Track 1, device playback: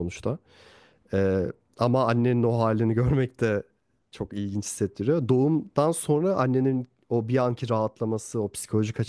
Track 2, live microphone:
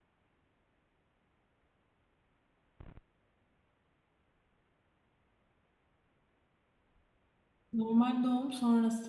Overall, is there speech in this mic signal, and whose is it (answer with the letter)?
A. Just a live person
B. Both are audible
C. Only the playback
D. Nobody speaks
A